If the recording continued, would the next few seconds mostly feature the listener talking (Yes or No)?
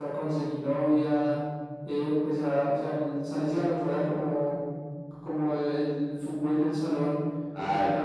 No